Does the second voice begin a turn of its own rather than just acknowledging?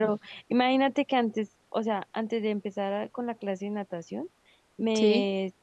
No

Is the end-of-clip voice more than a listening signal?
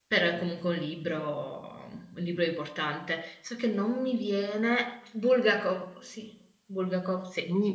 Yes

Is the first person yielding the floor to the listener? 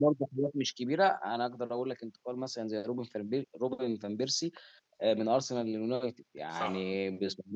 No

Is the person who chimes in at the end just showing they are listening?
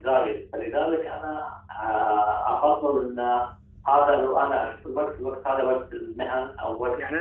No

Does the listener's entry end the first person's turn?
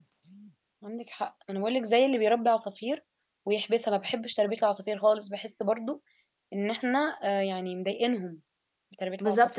Yes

